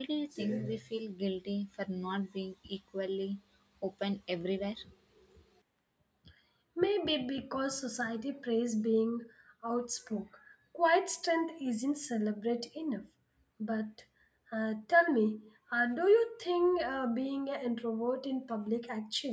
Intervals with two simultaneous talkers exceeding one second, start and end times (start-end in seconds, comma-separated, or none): none